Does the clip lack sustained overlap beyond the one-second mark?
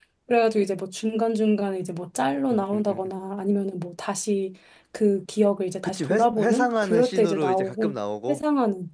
No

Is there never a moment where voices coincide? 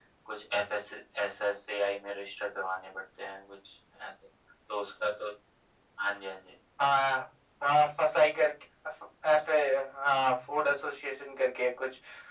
Yes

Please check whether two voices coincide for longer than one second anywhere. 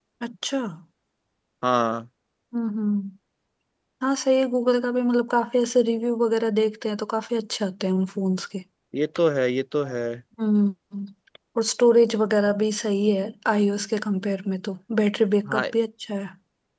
No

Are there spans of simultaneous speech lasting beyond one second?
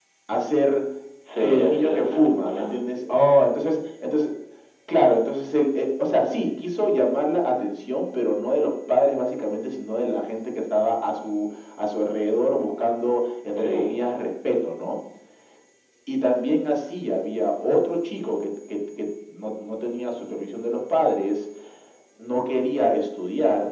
Yes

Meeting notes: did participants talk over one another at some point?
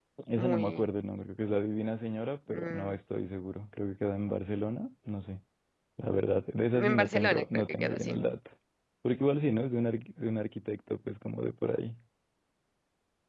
Yes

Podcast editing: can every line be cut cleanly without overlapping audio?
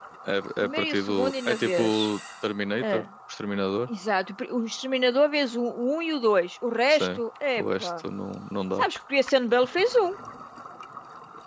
No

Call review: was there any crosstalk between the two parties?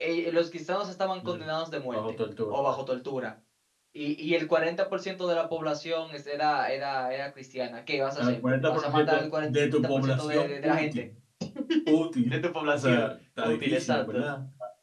Yes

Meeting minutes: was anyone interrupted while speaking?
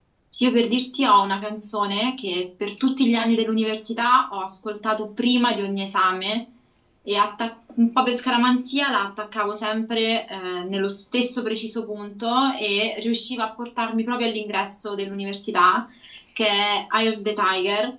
No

